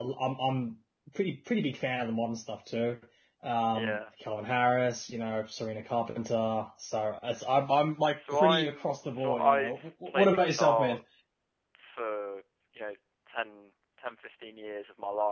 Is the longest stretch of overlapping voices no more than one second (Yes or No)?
No